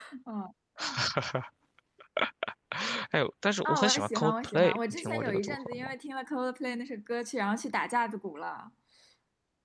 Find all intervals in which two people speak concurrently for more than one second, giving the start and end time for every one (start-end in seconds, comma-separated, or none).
3.6-5.9